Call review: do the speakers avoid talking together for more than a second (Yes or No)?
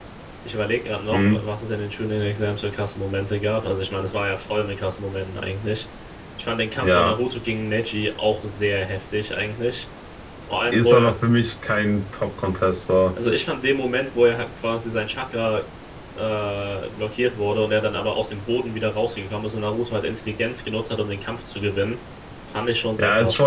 Yes